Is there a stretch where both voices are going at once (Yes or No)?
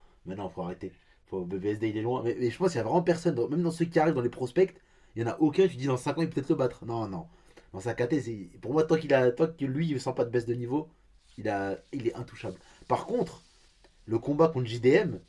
No